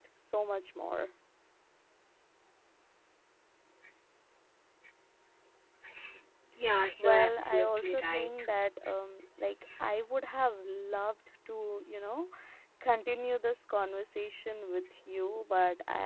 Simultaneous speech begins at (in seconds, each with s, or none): 7.0 s